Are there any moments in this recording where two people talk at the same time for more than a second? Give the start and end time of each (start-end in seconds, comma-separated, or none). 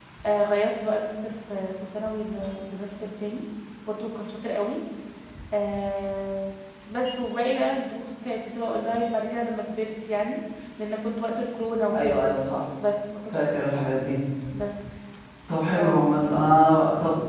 none